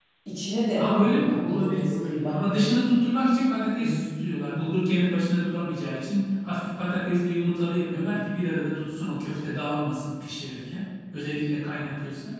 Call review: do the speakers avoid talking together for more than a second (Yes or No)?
No